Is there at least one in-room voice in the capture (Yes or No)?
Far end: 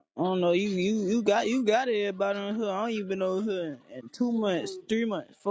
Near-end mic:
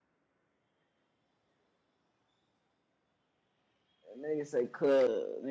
Yes